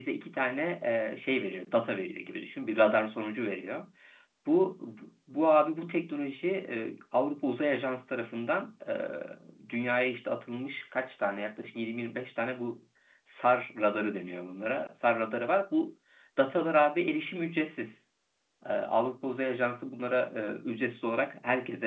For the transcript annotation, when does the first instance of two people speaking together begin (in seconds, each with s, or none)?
none